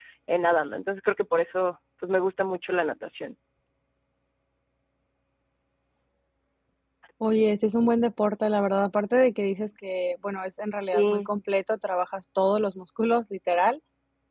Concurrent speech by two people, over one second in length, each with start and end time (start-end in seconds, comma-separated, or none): none